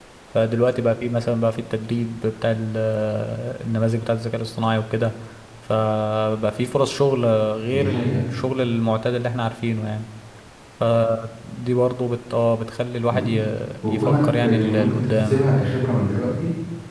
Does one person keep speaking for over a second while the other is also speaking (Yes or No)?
Yes